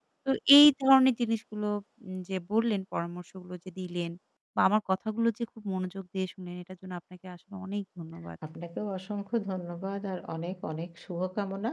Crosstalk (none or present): none